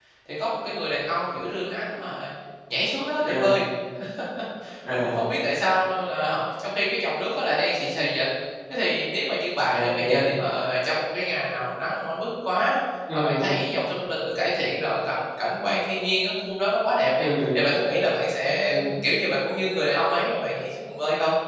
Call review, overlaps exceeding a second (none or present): none